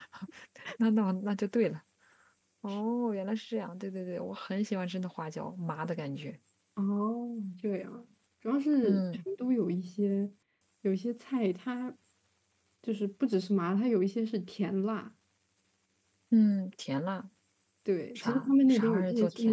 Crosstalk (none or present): present